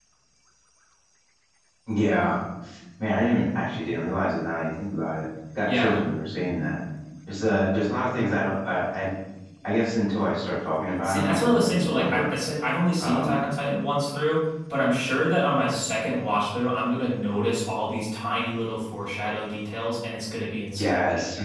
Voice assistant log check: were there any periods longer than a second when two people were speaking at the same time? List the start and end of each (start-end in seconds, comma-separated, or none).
11.0-12.3